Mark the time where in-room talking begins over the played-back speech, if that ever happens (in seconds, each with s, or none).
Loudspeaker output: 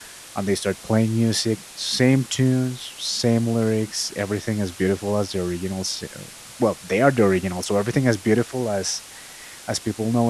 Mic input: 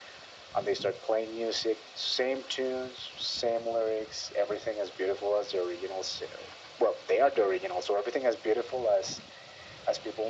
none